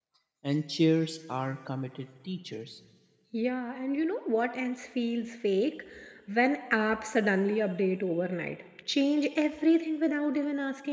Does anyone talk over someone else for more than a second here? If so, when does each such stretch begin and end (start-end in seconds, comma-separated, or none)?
none